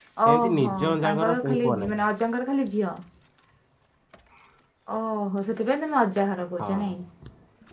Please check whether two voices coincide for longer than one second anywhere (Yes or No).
Yes